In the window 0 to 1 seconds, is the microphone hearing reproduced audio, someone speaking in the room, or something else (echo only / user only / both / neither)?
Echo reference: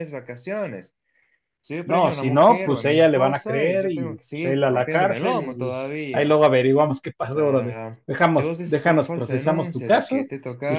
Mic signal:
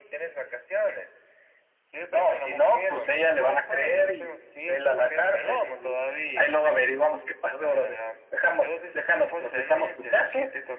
echo only